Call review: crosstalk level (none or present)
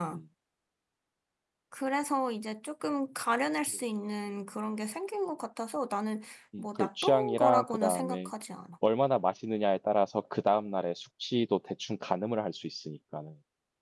present